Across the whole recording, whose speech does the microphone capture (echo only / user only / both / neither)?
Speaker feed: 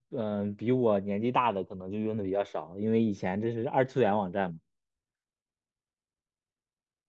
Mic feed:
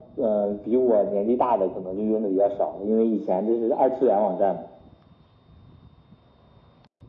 echo only